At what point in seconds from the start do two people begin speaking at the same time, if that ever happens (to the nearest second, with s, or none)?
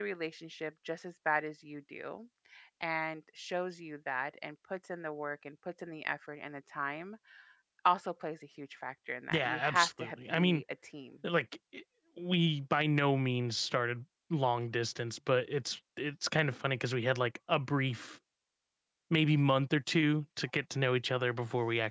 9 s